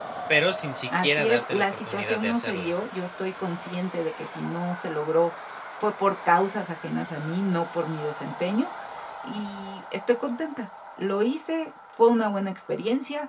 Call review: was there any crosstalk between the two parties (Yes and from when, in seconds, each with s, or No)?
Yes, from 1.0 s